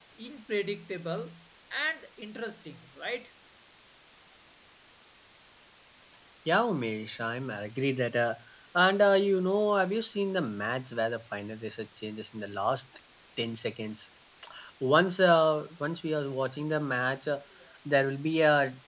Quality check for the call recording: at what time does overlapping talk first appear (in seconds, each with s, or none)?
none